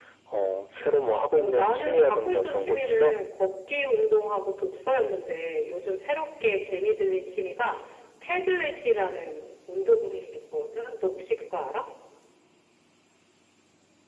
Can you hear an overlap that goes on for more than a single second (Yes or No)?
Yes